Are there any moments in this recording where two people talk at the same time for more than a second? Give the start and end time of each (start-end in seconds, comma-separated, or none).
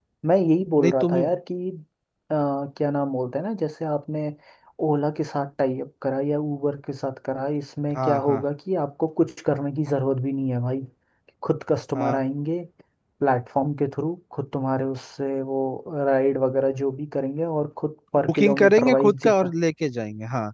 18.3-19.5